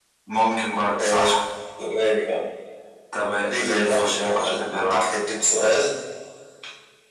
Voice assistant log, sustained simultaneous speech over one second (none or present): present